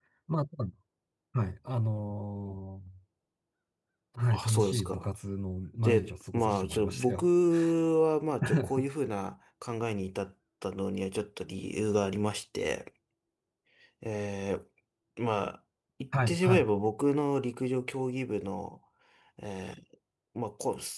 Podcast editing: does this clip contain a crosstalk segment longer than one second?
Yes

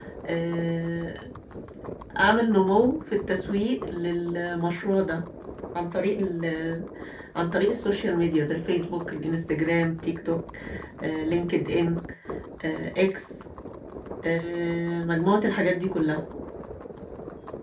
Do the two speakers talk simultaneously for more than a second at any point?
No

